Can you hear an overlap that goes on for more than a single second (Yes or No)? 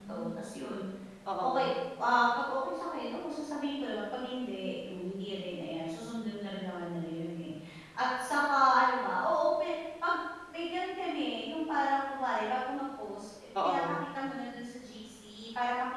No